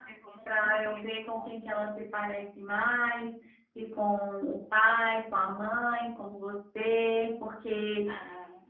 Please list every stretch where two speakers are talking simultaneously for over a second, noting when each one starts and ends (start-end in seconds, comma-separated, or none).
0.5-1.9